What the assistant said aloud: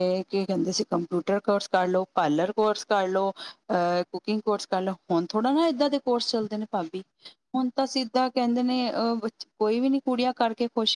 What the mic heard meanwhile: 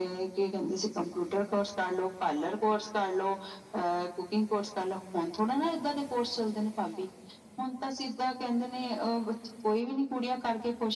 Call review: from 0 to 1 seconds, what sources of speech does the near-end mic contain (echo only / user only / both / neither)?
echo only